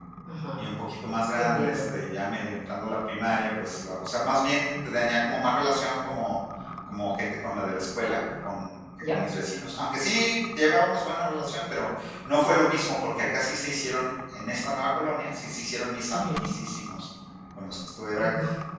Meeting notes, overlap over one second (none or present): none